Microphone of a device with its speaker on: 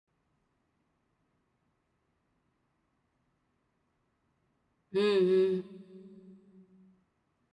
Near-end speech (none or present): present